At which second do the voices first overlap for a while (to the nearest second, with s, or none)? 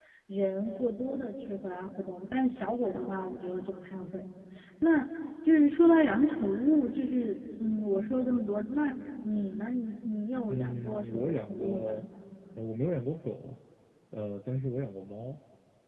10 s